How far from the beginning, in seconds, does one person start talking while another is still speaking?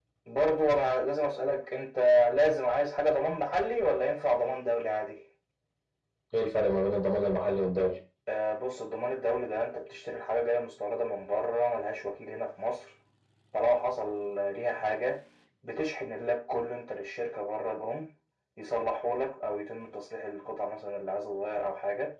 none

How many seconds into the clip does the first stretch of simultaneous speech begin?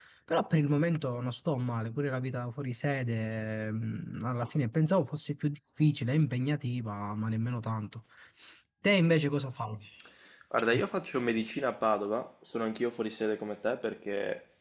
none

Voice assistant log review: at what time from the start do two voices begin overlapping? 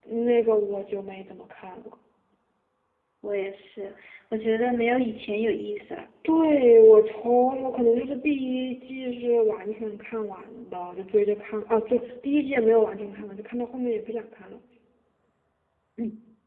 none

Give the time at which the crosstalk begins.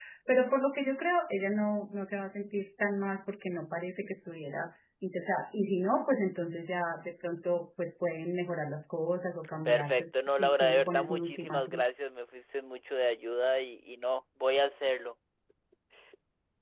9.7 s

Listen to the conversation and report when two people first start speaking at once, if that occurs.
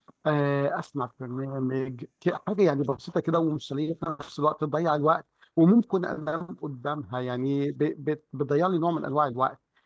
none

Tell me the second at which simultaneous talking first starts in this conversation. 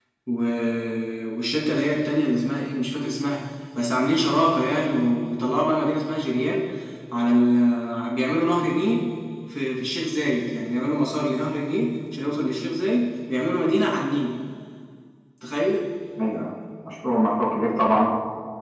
none

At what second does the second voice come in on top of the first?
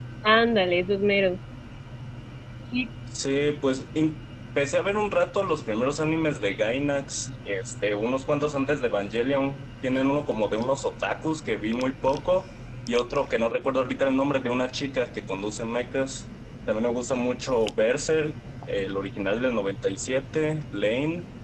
none

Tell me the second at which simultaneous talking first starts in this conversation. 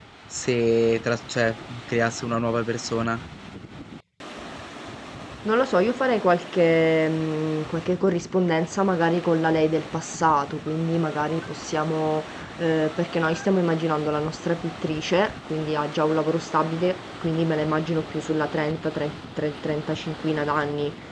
none

